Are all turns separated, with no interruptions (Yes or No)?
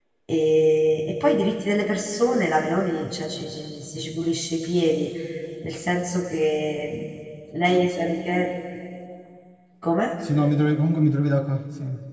Yes